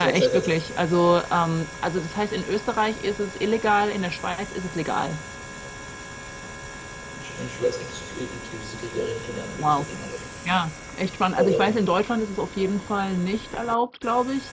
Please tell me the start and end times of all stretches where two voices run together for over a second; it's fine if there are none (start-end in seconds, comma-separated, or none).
none